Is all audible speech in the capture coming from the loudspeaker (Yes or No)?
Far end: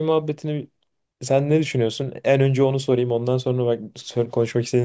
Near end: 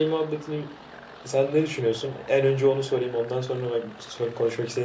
Yes